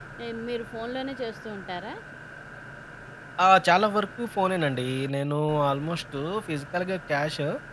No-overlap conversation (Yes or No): Yes